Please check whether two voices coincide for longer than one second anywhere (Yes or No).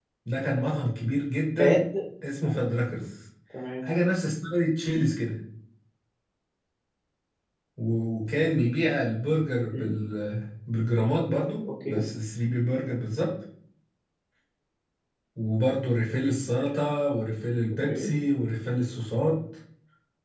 No